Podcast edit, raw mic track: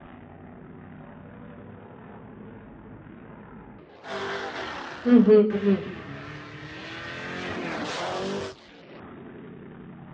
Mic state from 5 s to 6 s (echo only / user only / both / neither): user only